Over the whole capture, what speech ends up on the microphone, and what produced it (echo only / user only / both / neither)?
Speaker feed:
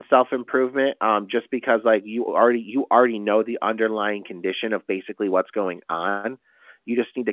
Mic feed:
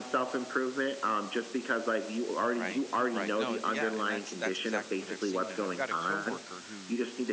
both